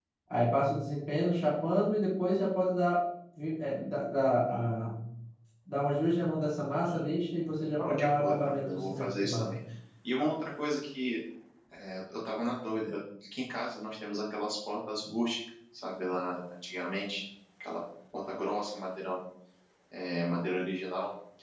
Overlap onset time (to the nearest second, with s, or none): 8 s